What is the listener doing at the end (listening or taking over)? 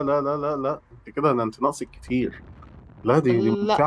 listening